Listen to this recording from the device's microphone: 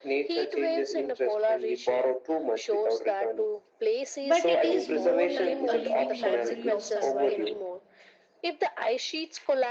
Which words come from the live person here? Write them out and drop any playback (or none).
but it is more like a living library of survival.